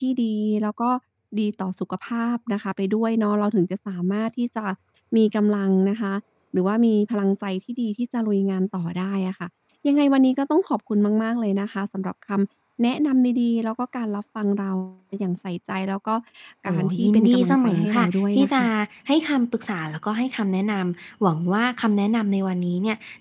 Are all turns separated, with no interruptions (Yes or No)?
No